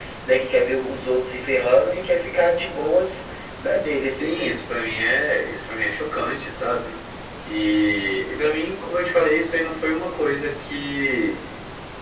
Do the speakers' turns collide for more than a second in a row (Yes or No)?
No